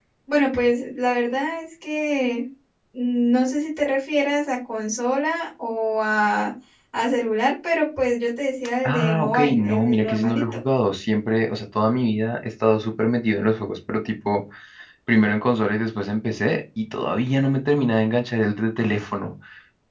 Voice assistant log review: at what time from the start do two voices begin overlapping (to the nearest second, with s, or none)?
9 s